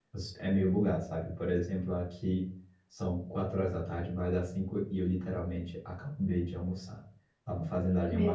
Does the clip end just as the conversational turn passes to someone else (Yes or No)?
No